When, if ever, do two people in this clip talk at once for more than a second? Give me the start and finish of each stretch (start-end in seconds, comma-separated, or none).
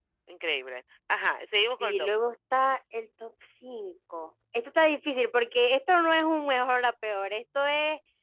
none